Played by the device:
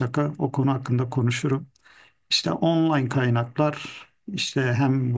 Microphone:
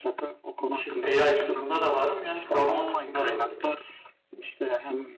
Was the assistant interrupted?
Yes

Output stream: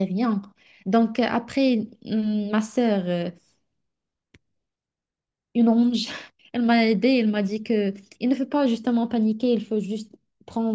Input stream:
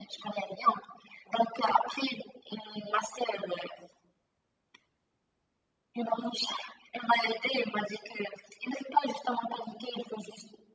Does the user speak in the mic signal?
No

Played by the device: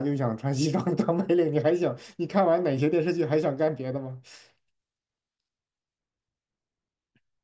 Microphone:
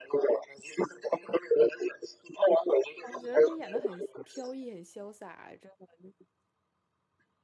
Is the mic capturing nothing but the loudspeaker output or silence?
No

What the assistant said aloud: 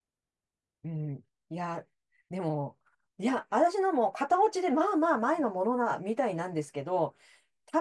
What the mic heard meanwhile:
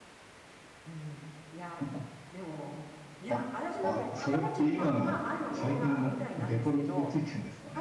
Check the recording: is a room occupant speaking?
Yes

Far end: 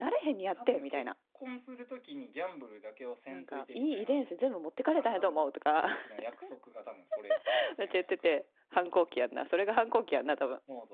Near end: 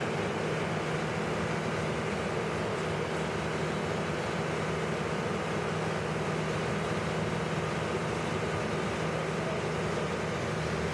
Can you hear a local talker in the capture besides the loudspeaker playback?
No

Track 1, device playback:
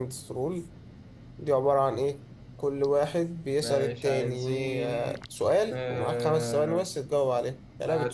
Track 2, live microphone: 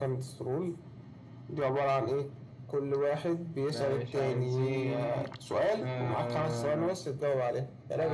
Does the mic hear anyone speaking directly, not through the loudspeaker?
No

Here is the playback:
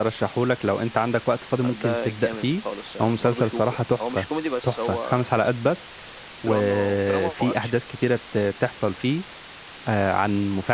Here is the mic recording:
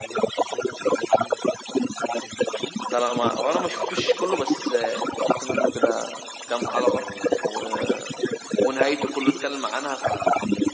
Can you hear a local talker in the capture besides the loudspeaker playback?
Yes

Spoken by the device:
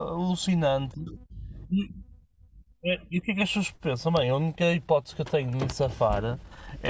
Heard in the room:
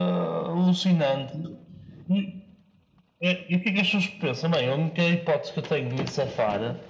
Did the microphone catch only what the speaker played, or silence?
Yes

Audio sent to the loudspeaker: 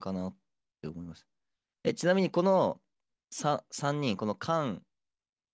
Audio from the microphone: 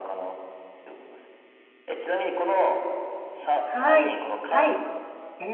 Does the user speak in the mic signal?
Yes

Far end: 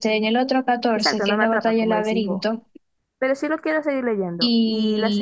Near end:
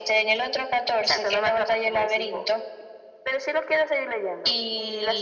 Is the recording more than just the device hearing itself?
No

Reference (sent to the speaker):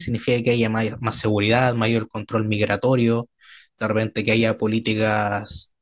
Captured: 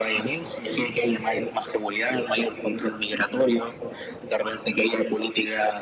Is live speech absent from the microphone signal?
Yes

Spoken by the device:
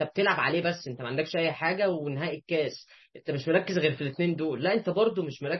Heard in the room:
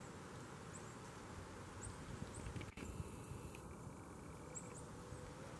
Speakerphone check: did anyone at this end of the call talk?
No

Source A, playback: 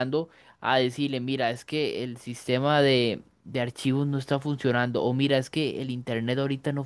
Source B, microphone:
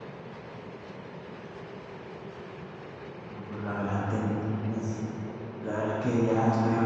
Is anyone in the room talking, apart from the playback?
Yes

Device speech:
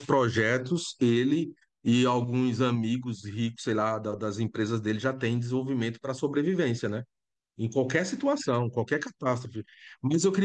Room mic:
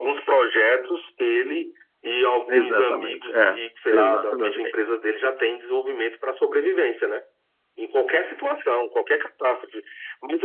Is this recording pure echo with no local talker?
No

